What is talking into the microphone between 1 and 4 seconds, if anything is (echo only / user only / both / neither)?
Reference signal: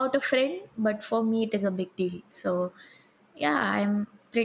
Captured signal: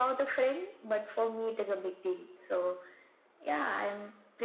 echo only